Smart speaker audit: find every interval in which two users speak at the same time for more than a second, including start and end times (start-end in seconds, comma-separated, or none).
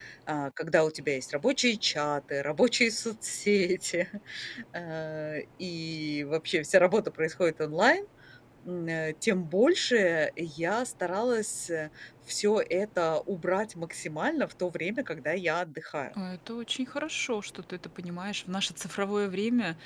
none